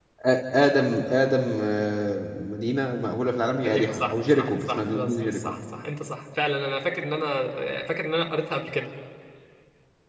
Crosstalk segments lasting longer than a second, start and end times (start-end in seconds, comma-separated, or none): 3.6-5.6